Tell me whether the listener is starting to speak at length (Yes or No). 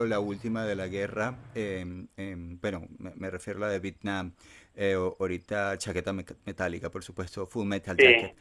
No